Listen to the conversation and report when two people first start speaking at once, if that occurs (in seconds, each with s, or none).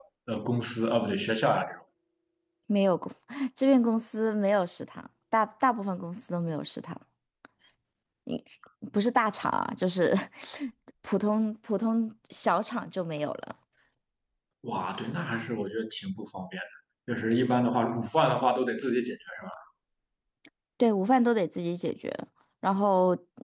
none